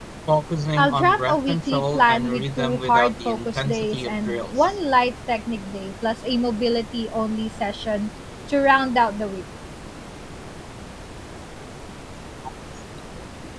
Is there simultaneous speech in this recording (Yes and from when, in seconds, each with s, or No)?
Yes, from 0.8 s